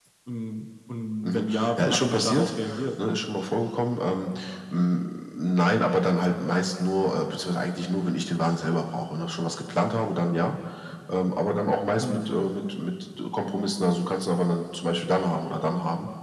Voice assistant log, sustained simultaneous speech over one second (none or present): present